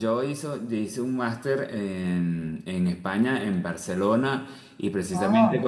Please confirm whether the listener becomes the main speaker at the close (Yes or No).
No